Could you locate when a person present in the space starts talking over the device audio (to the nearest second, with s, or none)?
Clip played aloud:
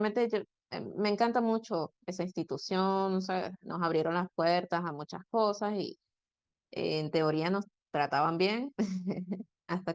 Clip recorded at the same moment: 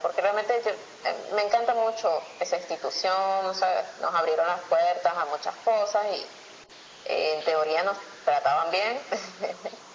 none